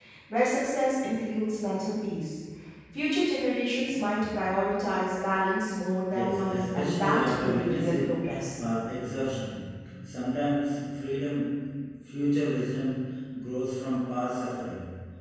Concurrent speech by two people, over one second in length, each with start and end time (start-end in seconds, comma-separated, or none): 6.1-8.5